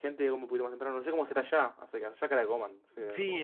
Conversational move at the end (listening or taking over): taking over